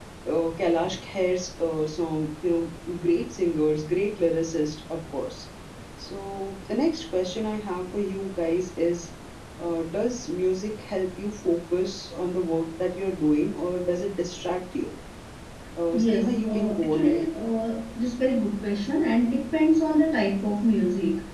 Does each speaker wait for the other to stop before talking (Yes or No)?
No